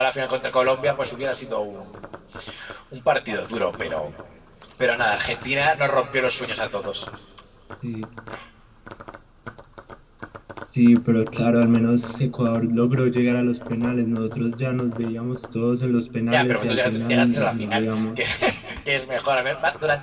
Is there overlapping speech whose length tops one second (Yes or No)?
Yes